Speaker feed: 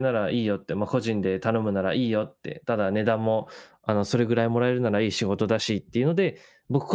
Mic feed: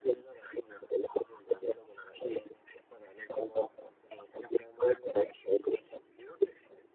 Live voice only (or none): none